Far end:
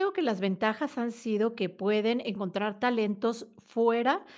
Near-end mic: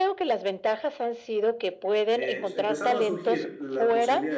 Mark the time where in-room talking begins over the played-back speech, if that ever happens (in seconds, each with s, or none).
2.1 s